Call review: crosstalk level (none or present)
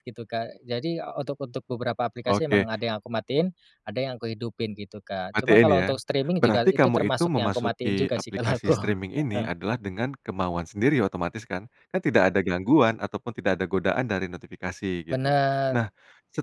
present